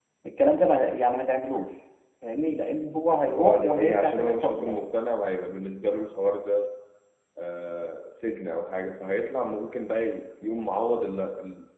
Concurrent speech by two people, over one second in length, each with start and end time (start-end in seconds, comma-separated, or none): 3.4-4.9